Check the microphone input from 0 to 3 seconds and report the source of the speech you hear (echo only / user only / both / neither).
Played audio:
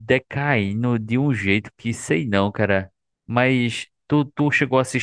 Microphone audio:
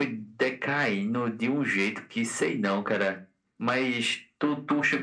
echo only